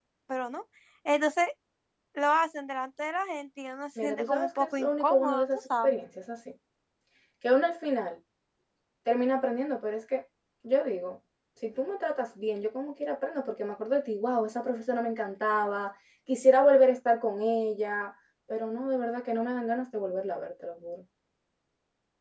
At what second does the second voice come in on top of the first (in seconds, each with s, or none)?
4.0 s